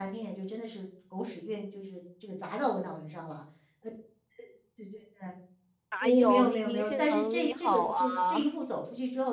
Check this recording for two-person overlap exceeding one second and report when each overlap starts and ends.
6.0-8.5

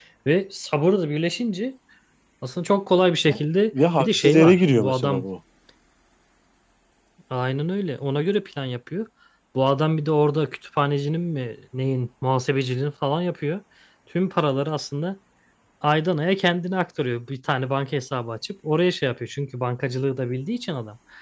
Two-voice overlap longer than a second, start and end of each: 4.0-5.2

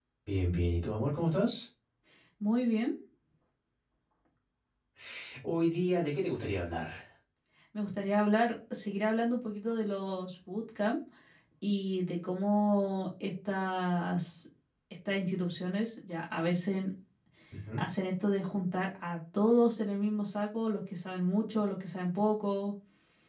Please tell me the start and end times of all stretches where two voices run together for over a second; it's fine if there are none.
none

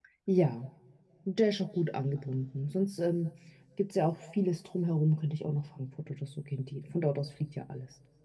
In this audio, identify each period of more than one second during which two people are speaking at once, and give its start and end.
none

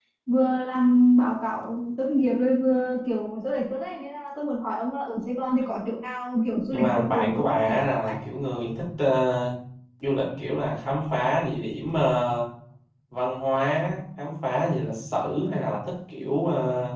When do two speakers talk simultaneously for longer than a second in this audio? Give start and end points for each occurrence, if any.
6.7-8.2

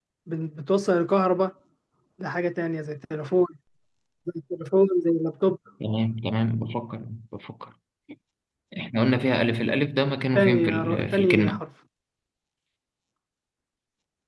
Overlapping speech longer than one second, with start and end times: 10.3-11.6

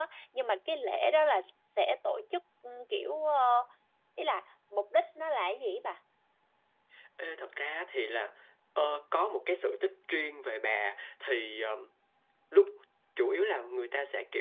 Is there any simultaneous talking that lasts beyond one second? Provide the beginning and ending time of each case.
none

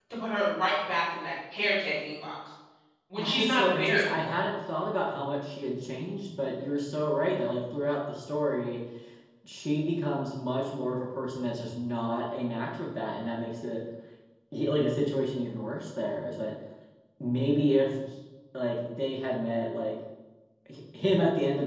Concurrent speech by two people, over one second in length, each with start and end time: 3.2-4.4

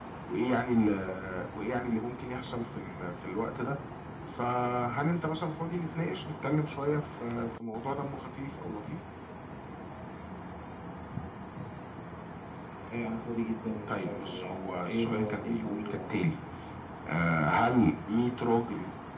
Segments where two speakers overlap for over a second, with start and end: 13.9-16.0

